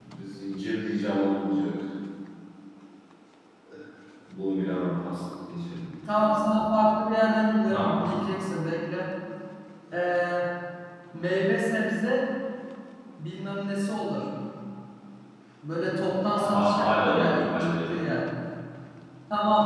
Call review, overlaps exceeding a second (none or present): present